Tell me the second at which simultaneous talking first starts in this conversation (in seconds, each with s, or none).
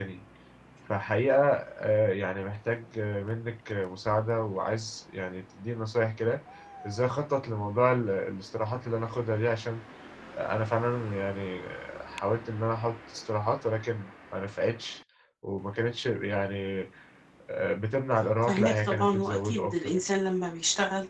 18.4 s